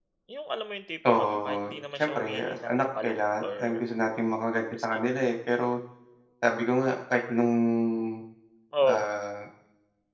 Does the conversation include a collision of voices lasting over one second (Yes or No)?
Yes